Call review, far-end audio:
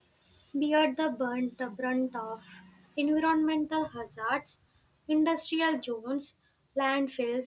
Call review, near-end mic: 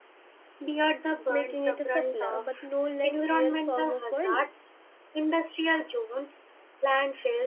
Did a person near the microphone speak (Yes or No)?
Yes